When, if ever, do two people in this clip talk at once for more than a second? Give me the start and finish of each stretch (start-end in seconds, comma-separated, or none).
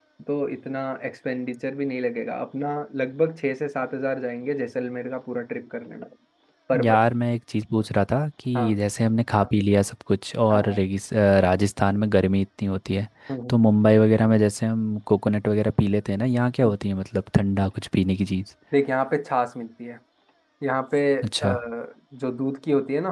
none